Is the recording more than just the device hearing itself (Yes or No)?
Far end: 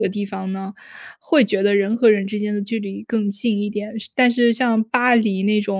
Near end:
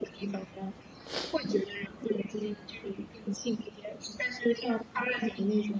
No